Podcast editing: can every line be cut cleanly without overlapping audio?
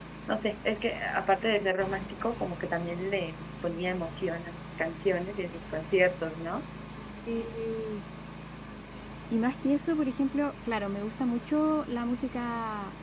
Yes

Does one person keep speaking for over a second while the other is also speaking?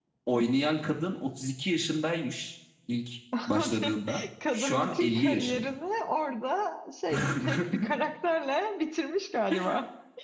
Yes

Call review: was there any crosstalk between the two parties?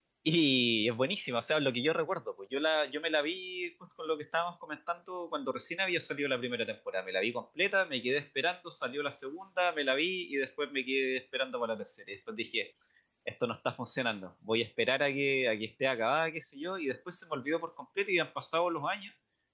No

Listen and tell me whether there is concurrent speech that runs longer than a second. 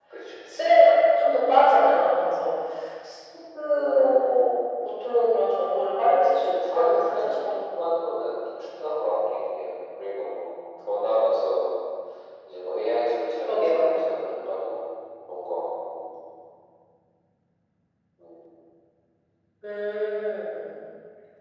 Yes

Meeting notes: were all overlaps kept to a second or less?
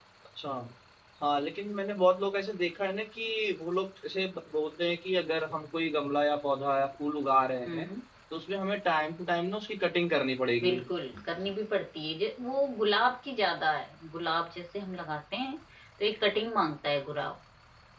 Yes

